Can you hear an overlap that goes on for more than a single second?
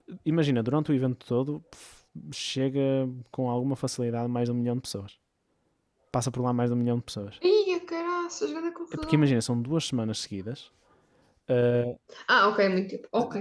No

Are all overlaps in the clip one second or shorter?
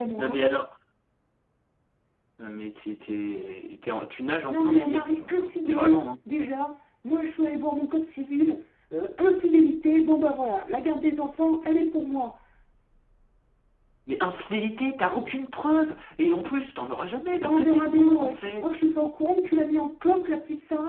No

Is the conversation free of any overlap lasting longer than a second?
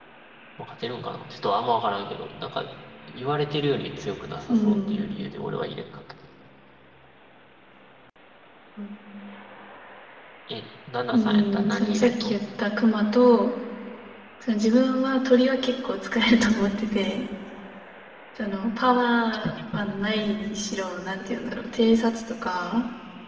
No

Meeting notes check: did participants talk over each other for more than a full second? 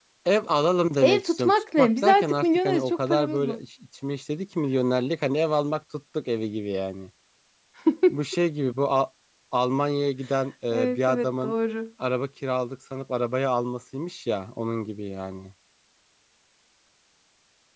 Yes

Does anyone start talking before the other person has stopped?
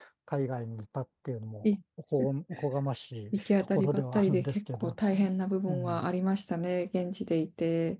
Yes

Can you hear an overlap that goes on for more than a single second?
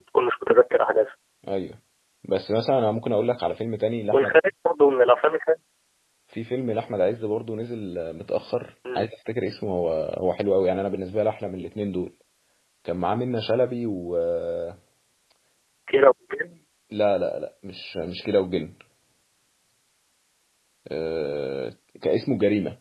No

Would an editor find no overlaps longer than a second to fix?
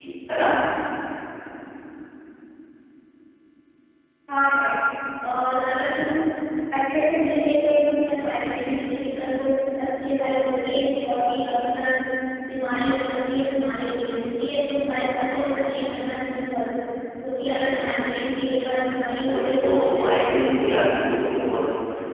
No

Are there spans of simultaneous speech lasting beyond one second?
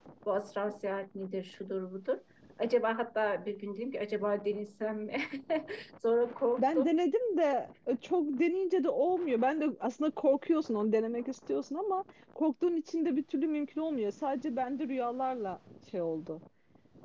No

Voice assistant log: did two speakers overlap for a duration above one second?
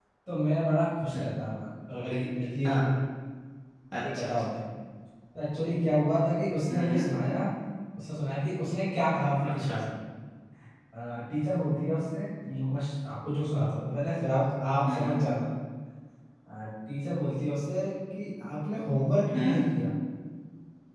No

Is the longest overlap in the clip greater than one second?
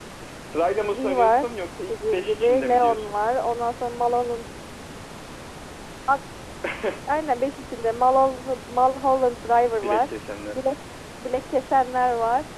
Yes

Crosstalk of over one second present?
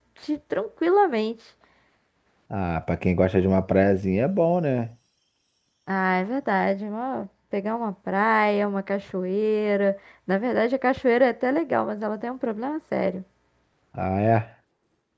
No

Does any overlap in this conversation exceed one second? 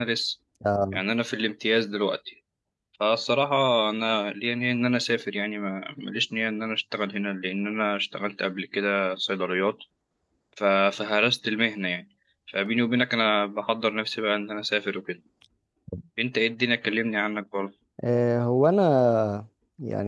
No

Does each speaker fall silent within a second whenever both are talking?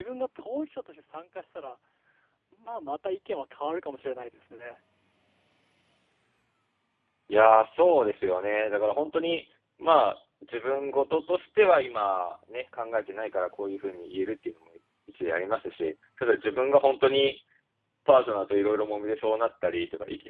Yes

